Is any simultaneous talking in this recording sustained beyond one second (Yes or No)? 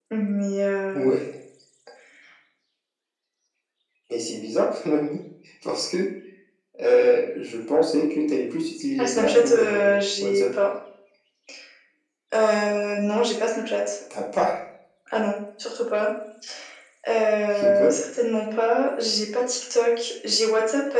Yes